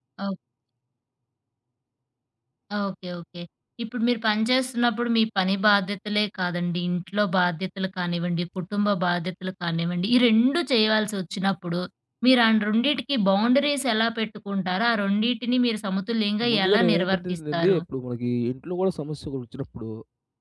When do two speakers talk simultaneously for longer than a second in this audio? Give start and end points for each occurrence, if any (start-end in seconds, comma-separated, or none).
16.5-17.8